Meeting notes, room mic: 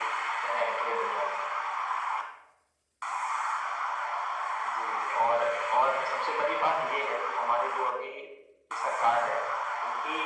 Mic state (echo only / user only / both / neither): echo only